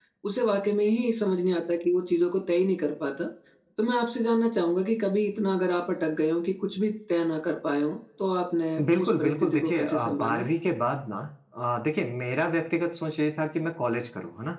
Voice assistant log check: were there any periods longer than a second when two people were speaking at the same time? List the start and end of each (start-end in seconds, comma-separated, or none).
8.8-10.5